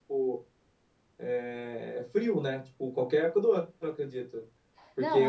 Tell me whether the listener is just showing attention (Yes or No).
Yes